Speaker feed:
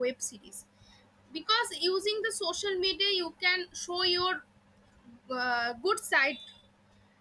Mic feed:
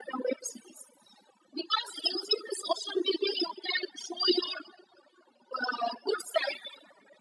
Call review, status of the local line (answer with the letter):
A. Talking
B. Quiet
B